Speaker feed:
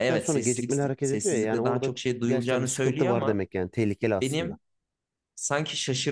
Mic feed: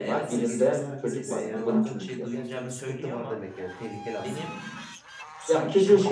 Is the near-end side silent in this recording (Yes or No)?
No